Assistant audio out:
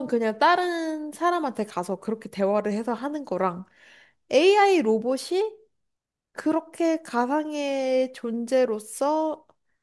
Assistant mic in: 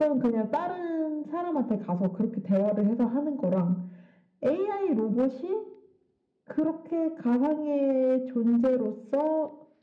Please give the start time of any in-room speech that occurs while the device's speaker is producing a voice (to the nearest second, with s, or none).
none